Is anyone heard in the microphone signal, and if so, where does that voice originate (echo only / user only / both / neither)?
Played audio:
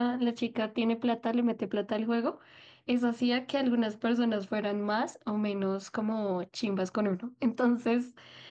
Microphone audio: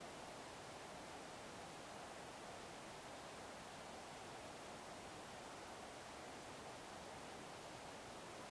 neither